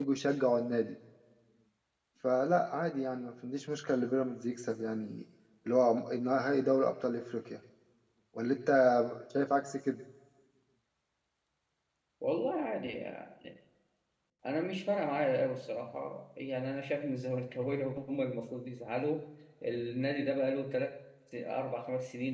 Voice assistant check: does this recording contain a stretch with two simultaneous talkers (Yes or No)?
No